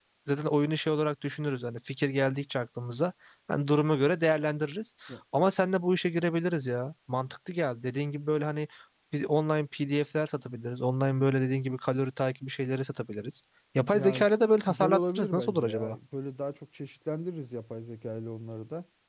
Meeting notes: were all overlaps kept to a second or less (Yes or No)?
No